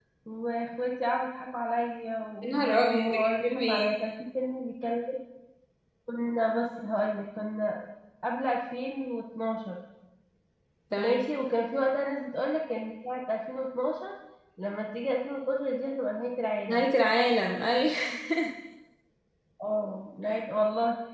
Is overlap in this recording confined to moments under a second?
No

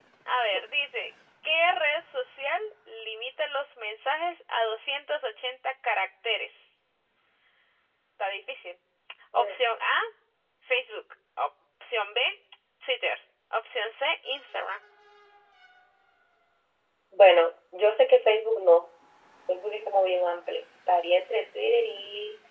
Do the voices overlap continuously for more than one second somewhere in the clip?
No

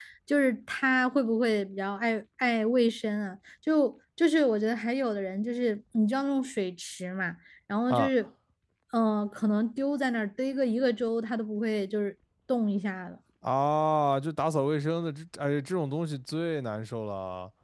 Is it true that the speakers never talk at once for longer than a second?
Yes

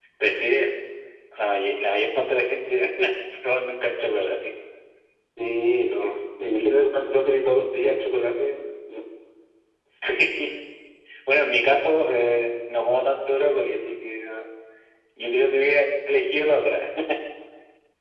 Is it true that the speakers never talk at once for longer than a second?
Yes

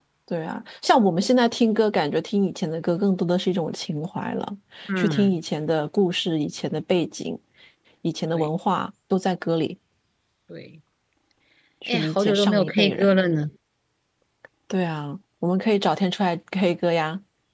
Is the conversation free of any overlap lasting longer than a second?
No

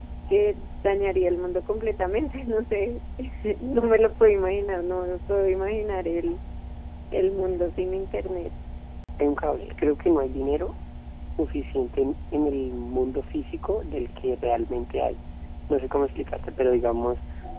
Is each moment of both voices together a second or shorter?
Yes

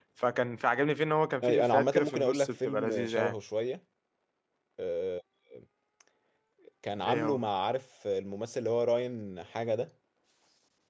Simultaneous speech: Yes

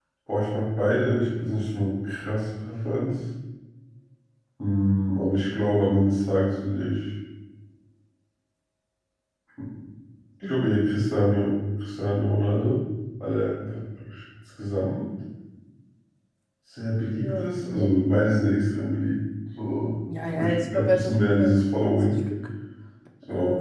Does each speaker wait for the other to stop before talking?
No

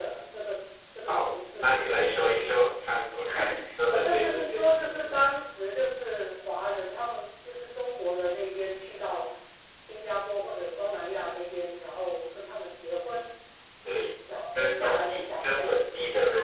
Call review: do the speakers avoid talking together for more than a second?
No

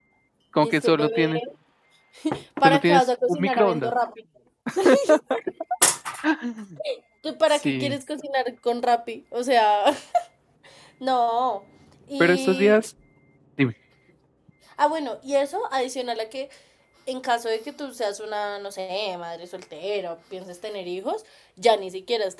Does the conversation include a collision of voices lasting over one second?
Yes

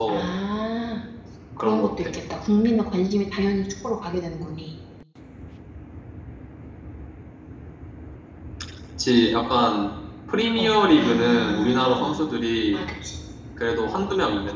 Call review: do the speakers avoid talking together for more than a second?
No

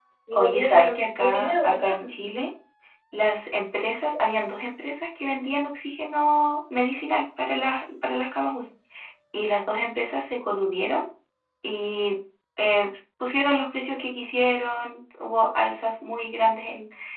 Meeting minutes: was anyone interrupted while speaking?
Yes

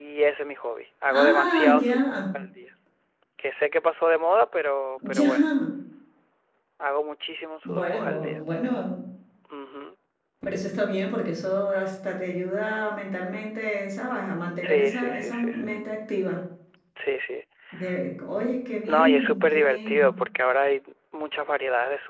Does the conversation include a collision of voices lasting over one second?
Yes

